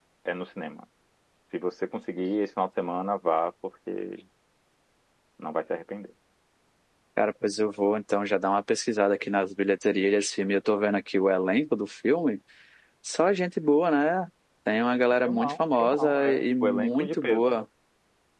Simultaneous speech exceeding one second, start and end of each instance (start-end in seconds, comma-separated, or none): 15.2-17.6